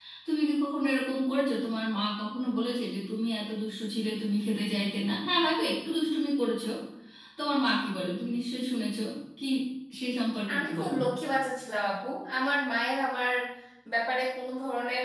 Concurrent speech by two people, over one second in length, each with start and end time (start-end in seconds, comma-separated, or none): none